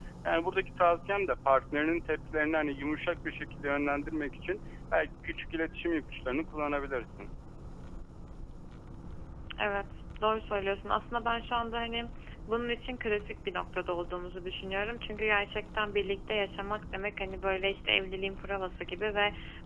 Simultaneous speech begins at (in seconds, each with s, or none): none